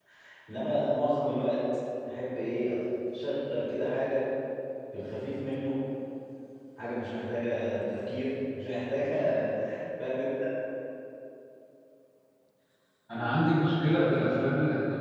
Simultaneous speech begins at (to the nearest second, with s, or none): none